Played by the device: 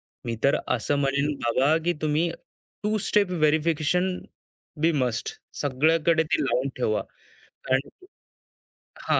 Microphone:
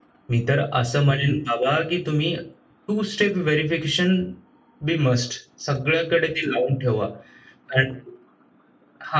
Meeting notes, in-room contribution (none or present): none